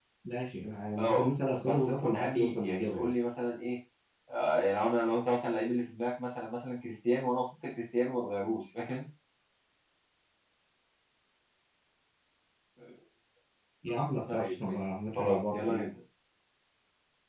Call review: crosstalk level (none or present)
present